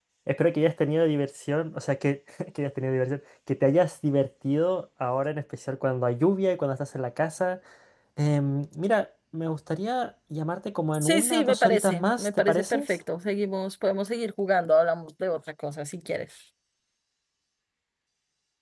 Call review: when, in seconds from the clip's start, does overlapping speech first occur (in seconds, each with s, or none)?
10.9 s